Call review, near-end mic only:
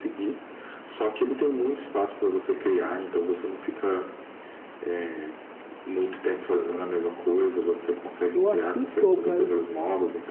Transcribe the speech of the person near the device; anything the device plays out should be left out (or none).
Eu acho muito top, cara. Essa